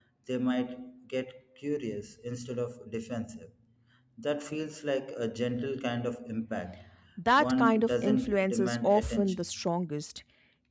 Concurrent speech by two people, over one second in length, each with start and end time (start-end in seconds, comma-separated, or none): 7.4-9.4